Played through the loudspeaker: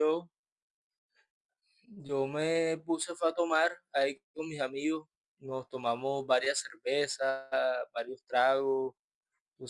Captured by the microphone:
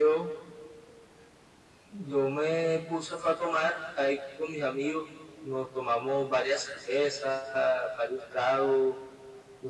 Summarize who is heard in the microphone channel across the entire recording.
echo only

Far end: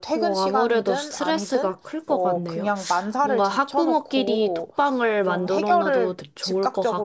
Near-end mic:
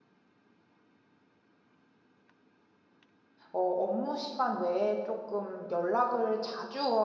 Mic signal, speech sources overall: user only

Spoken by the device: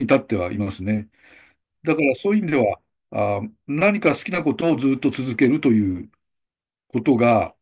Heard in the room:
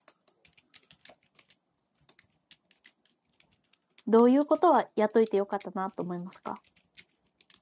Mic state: user only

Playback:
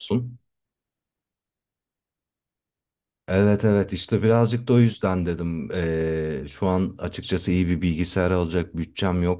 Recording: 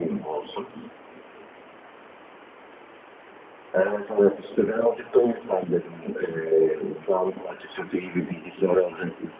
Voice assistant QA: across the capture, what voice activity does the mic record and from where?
echo only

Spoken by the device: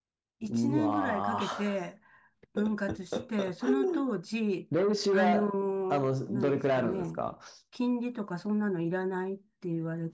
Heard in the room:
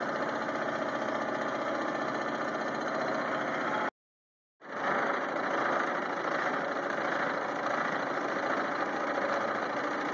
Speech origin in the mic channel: neither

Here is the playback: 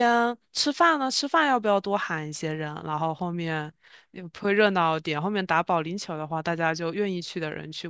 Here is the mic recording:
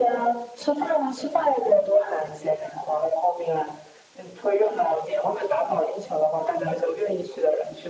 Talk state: echo only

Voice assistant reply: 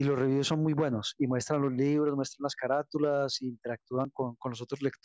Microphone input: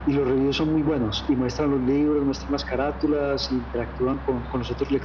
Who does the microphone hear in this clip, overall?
echo only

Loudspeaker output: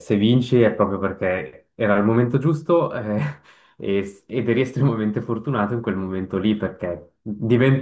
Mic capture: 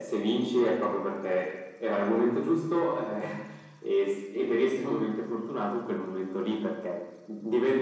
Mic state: echo only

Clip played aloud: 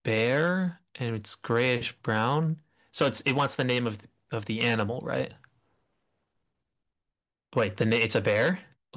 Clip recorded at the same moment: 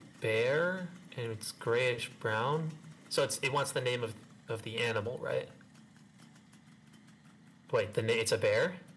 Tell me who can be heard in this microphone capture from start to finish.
echo only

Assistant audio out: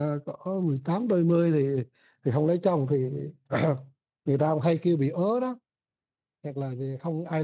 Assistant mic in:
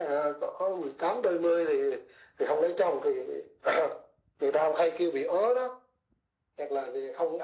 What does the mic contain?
echo only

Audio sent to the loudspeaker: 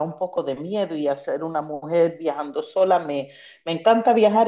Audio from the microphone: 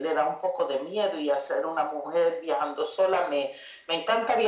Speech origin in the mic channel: echo only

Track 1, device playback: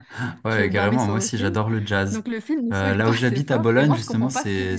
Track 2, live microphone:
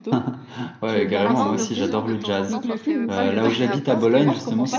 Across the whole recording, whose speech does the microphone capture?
both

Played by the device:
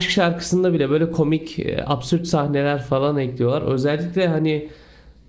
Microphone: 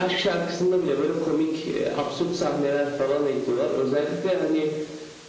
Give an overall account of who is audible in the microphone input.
echo only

